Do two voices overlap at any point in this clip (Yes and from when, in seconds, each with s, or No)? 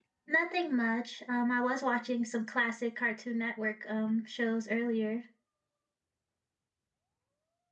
No